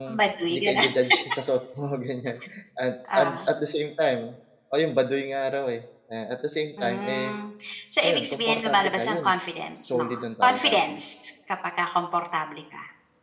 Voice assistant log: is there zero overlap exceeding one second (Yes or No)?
No